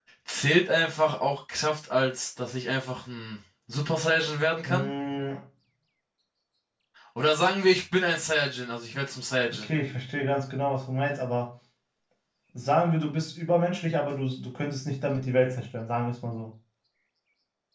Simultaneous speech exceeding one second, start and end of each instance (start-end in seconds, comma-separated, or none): none